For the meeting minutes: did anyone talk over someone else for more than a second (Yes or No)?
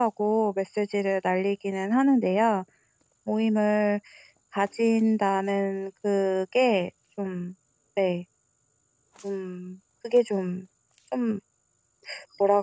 No